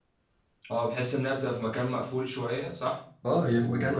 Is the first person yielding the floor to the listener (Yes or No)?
Yes